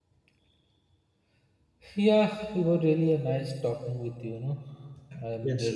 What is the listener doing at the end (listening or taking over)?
taking over